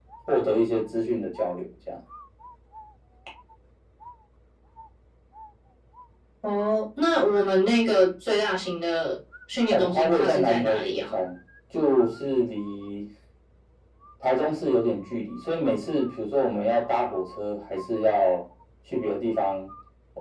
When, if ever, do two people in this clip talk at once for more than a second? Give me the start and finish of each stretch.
9.7-11.2

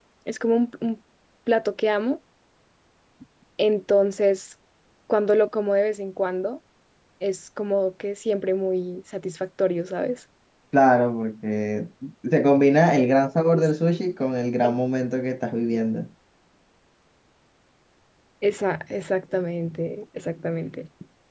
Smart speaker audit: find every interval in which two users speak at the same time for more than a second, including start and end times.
none

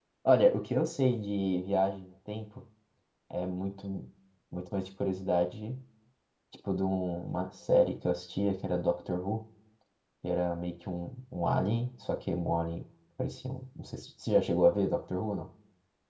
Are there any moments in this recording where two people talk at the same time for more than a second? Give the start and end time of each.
none

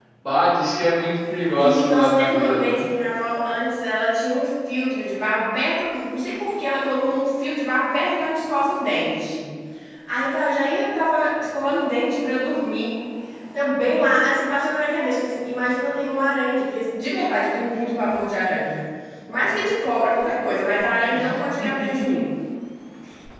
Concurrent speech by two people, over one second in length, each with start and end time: 1.6-2.8

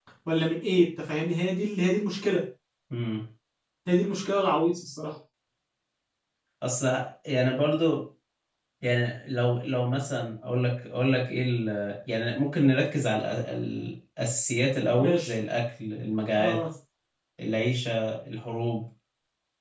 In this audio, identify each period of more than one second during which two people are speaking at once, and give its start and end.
none

